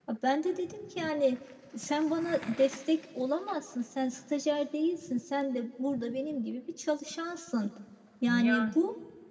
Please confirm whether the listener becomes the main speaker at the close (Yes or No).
No